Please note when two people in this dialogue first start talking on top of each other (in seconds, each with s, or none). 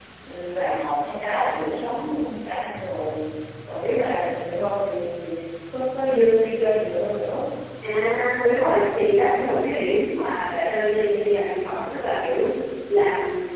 none